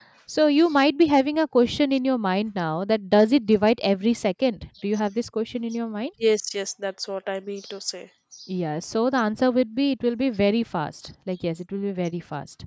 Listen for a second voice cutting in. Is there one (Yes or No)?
No